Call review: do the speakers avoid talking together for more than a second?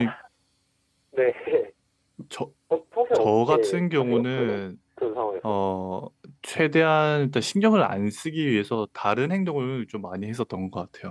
No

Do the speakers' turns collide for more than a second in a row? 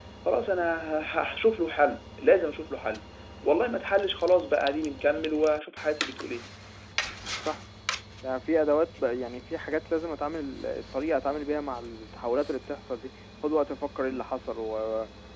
No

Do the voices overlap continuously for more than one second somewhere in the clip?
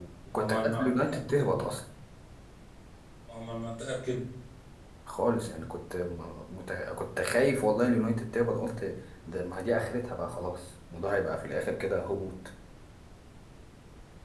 Yes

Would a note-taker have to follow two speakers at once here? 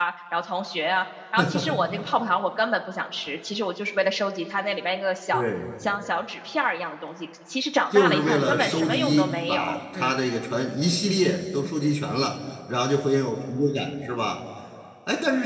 Yes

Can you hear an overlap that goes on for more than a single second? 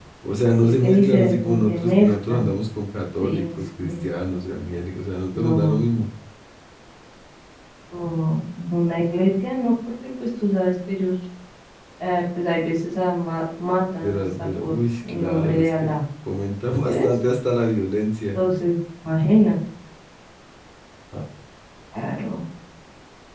Yes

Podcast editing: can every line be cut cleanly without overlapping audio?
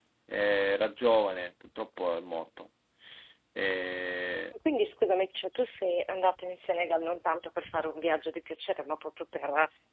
Yes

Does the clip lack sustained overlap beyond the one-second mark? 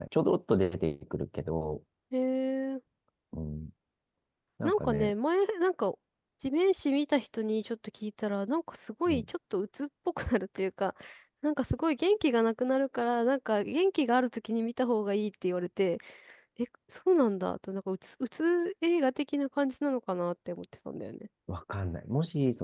Yes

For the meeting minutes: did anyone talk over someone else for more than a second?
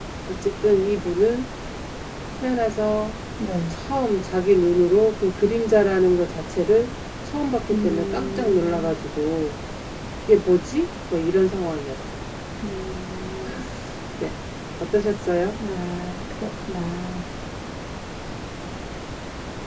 Yes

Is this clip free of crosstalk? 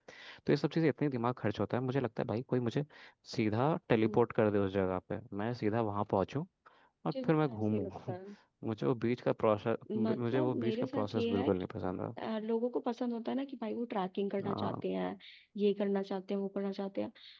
No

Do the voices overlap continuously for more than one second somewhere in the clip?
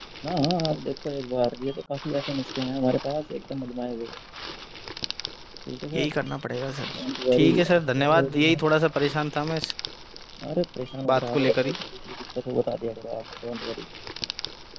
Yes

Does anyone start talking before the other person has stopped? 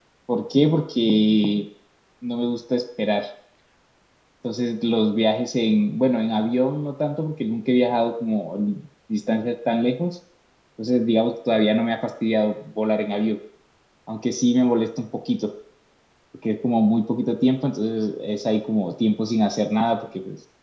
No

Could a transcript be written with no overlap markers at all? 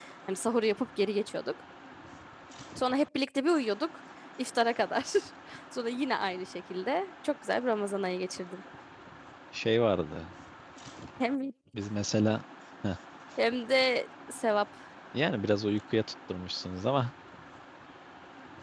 Yes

